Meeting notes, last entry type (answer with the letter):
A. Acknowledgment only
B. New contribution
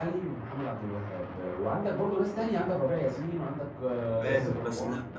B